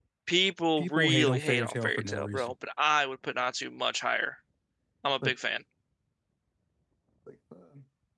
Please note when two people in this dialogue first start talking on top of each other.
0.8 s

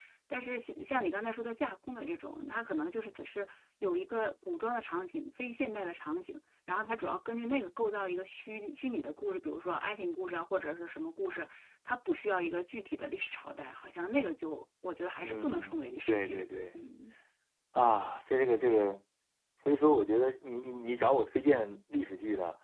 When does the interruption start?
15.2 s

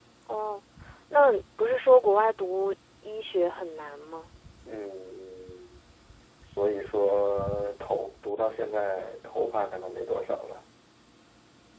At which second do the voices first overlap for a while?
none

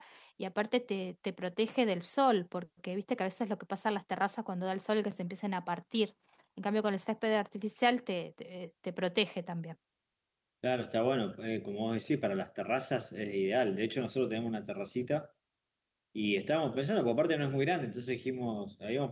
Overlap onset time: none

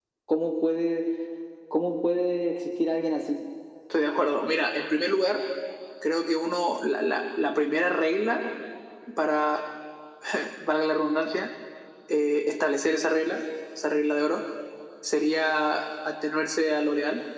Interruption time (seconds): none

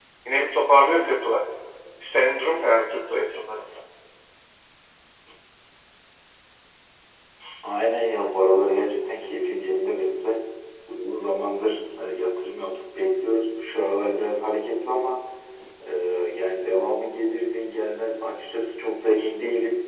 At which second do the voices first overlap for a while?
none

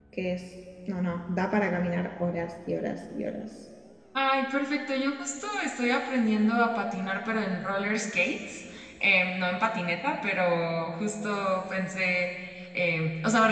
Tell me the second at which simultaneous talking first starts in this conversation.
none

